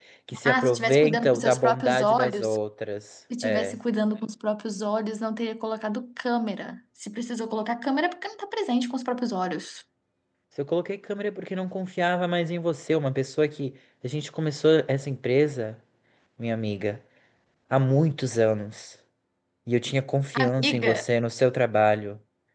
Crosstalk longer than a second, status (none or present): present